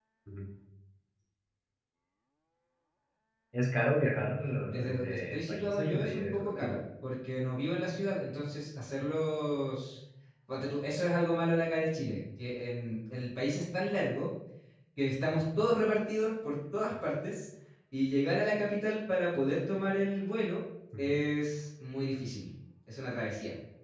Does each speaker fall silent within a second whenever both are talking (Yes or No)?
No